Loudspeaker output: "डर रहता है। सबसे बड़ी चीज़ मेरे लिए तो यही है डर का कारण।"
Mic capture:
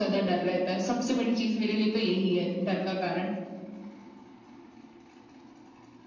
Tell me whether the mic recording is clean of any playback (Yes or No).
No